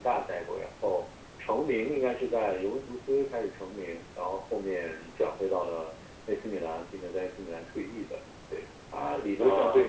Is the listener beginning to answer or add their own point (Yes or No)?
No